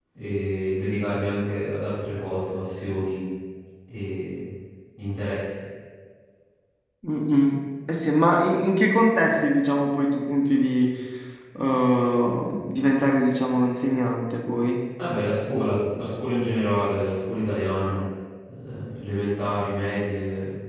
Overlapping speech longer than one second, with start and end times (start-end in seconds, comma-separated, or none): none